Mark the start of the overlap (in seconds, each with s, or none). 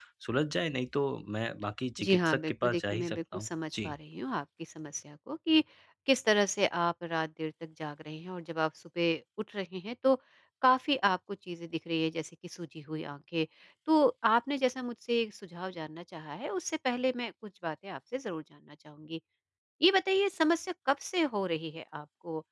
2.0 s